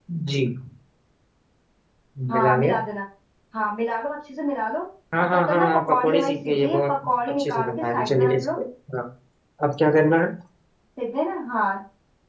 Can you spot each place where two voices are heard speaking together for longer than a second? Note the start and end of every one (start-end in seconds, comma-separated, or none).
5.2-6.9, 7.3-8.6